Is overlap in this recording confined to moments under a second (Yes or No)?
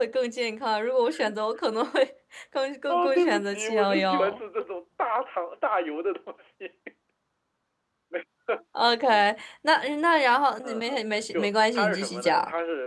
No